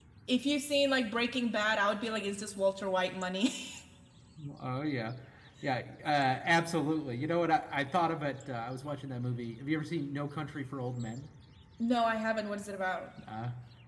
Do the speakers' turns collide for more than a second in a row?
No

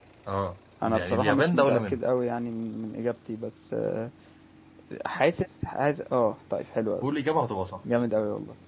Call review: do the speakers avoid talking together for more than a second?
No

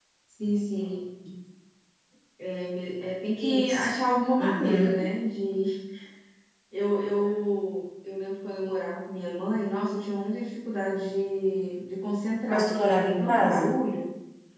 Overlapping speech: Yes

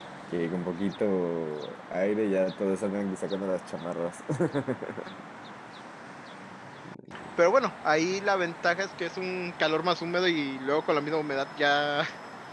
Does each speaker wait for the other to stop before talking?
Yes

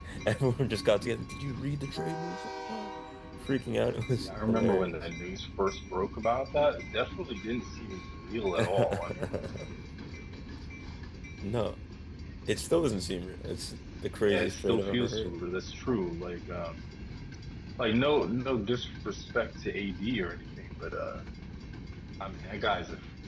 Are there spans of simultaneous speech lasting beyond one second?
Yes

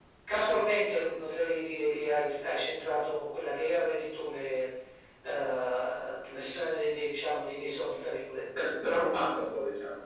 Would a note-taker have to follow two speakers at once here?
No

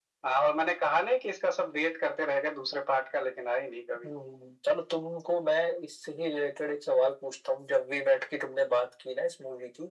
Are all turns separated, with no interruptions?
Yes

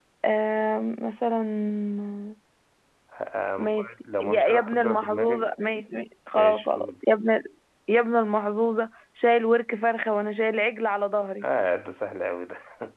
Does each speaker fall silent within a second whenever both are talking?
No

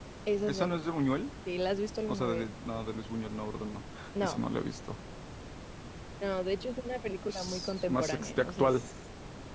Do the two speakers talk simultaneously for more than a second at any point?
Yes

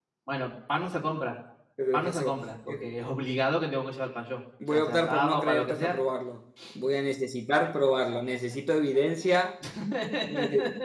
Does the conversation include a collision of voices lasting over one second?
Yes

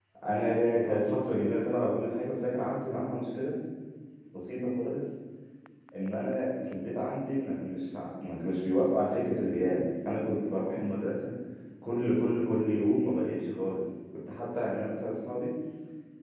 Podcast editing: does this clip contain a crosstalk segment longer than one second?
No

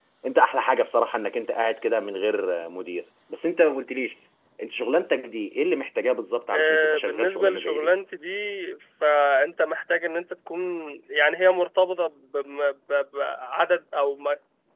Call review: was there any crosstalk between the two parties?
Yes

